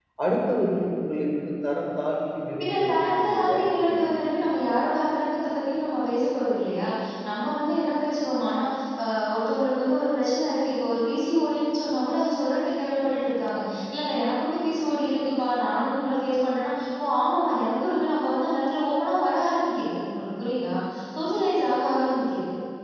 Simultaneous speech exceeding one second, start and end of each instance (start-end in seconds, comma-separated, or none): 2.6-4.1